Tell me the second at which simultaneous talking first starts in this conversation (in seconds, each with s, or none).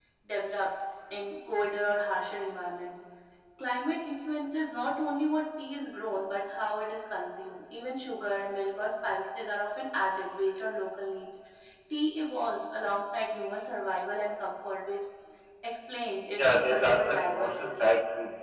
16.4 s